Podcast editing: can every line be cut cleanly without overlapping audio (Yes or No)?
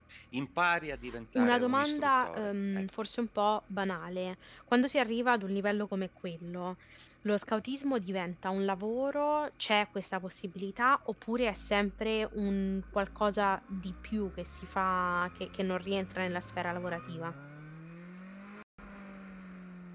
No